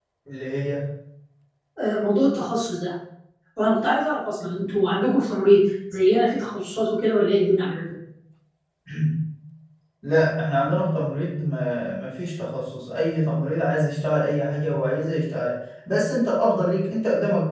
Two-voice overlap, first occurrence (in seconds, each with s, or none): none